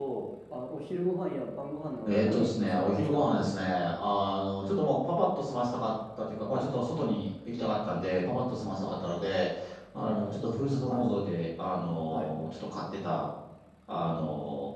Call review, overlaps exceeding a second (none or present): present